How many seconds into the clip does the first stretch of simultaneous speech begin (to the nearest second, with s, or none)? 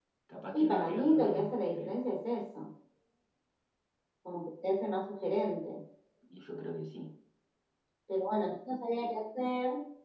1 s